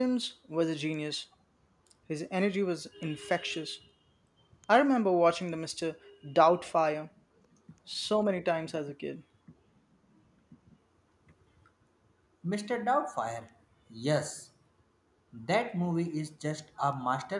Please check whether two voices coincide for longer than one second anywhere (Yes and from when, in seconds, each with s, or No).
No